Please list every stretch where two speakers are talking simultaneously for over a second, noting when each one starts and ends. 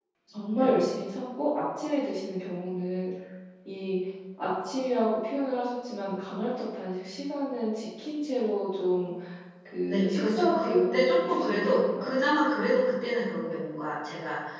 9.9-12.1

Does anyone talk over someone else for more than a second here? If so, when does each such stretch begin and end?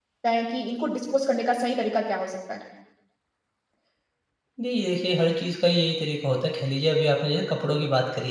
none

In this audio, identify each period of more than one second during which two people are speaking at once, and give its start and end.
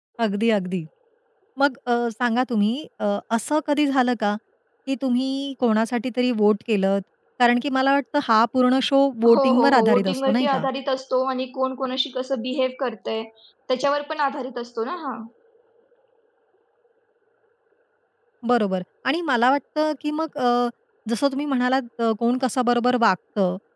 9.3-10.7

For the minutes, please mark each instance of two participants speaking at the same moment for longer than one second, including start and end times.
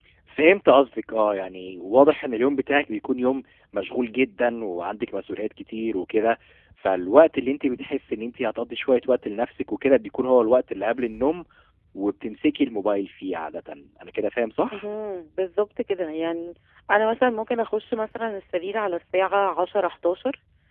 none

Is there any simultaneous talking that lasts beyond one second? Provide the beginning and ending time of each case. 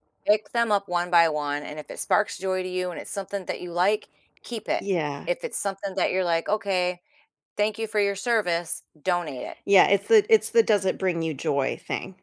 none

